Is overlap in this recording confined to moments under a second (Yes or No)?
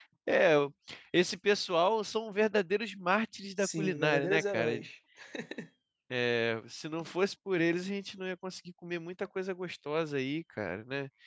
No